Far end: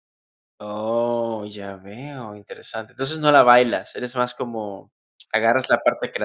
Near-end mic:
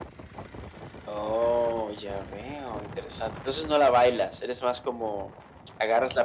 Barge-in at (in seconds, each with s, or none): none